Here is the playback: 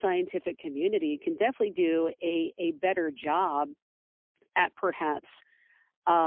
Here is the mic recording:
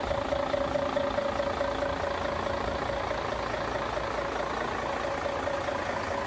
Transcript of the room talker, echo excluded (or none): none